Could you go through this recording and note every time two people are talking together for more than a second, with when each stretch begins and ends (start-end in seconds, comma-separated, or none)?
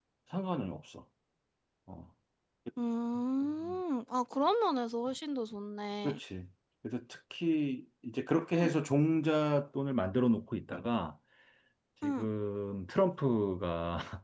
none